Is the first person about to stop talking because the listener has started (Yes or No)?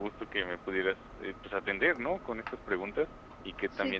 No